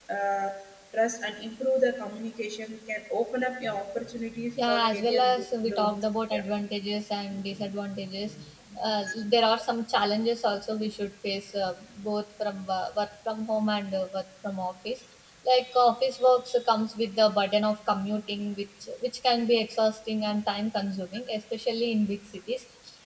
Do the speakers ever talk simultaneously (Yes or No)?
Yes